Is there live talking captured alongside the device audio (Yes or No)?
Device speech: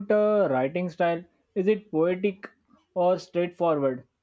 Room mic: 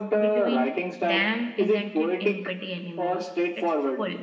Yes